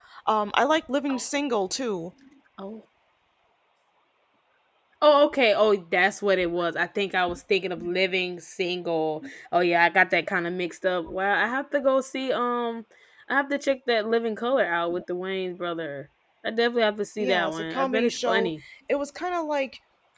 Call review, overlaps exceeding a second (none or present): present